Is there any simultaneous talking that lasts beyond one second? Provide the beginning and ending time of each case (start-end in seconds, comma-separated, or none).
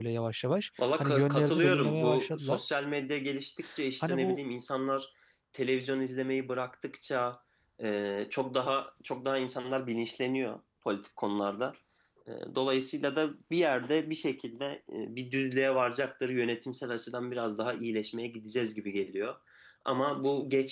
1.0-2.6